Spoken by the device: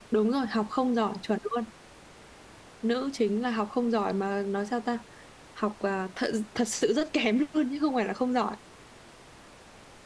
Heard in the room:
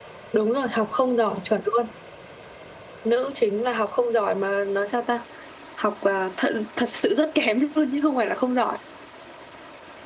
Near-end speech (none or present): none